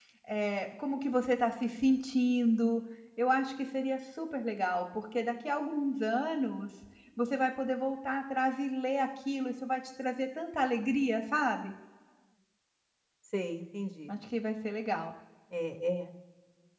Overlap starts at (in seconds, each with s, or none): none